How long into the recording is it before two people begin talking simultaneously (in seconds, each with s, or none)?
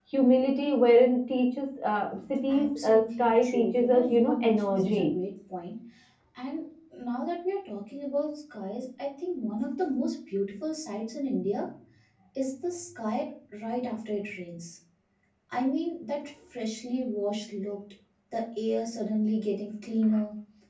2.5 s